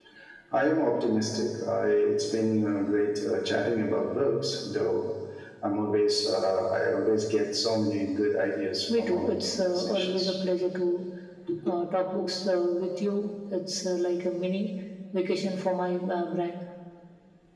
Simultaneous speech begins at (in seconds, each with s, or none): 8.9 s